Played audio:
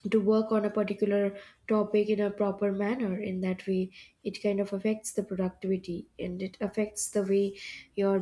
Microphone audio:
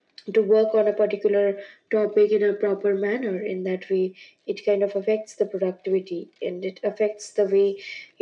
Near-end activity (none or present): none